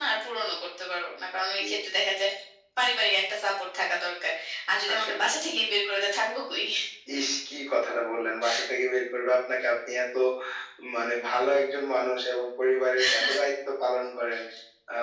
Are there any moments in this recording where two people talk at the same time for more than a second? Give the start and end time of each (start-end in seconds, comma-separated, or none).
none